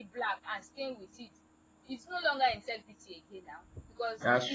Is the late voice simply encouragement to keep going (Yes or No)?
Yes